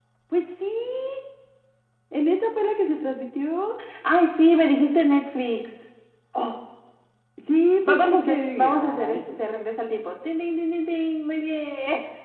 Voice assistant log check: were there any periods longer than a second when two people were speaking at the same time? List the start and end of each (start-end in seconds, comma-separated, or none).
7.9-9.4